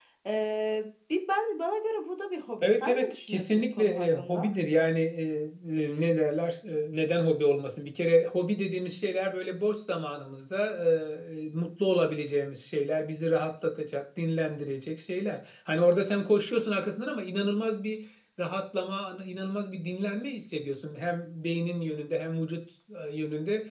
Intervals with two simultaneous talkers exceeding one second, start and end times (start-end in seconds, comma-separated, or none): 2.6-4.5